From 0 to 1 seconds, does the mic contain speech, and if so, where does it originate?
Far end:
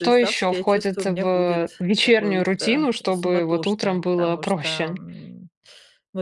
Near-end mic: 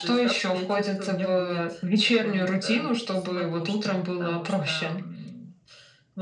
echo only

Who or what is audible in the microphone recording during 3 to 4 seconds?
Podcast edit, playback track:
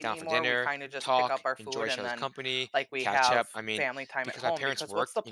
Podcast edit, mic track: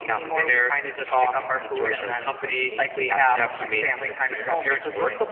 both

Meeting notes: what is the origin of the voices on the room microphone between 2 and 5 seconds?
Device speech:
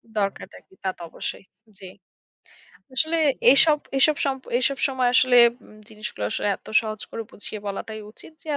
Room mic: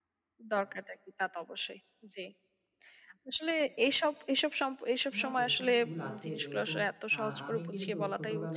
echo only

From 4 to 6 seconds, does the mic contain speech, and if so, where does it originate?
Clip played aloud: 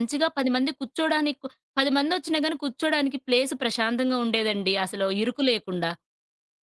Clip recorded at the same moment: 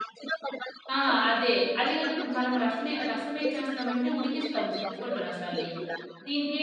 both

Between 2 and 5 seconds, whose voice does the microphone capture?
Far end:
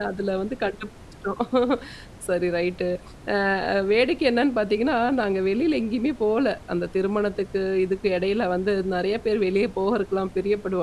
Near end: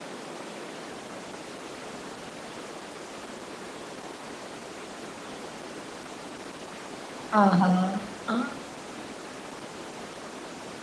neither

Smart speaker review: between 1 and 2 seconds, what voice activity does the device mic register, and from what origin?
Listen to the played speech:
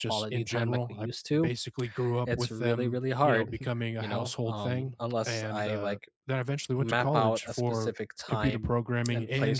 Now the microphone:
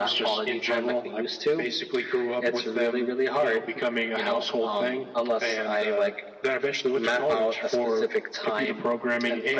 echo only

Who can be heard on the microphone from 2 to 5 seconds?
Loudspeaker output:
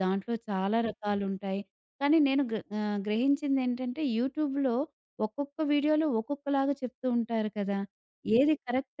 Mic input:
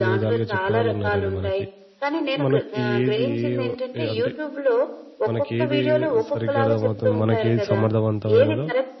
both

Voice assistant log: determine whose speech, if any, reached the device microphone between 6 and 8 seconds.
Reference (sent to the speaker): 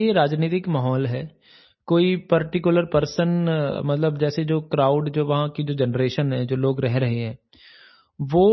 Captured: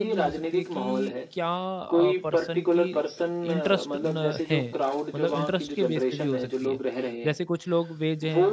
both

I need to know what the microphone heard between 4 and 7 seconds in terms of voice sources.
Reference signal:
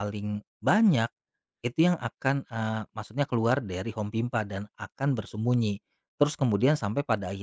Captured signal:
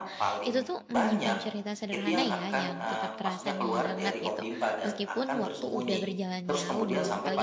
both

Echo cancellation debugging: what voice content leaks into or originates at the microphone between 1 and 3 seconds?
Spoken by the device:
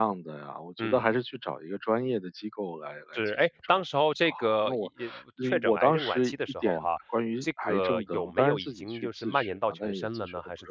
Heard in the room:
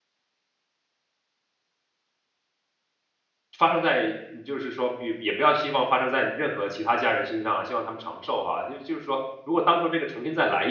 neither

